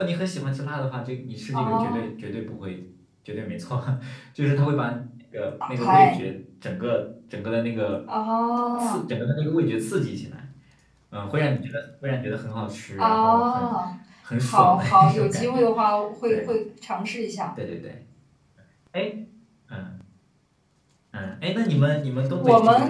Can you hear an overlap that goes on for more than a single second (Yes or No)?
Yes